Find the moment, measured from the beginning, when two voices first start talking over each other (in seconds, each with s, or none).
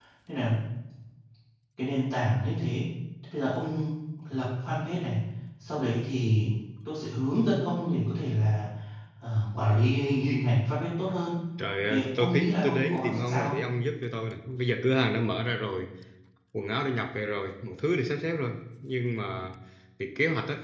11.8 s